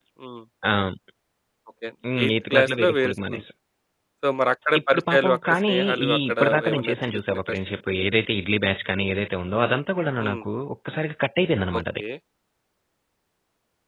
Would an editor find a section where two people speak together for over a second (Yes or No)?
Yes